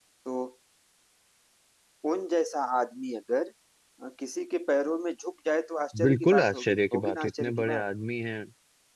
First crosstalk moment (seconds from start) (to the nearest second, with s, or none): 6 s